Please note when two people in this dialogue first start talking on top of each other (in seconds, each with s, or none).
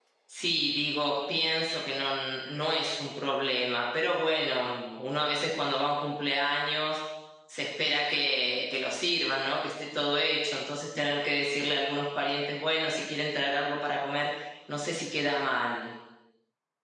none